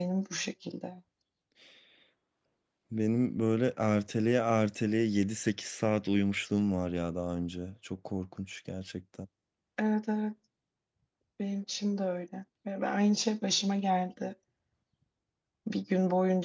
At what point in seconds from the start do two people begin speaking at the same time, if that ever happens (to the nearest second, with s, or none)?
none